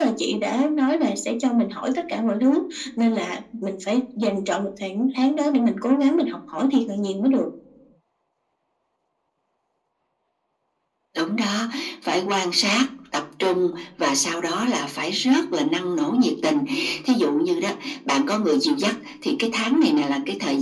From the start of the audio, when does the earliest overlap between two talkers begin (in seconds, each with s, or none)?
none